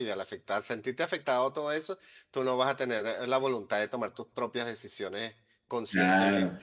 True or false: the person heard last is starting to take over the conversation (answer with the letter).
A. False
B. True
B